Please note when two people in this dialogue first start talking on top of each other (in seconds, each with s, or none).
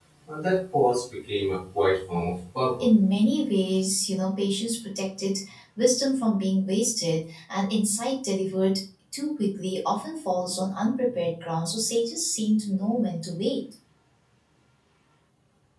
none